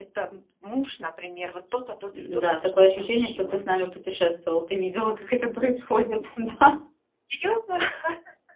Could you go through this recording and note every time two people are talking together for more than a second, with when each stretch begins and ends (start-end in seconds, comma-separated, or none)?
2.2-3.6